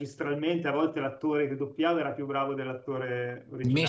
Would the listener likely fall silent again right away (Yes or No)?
No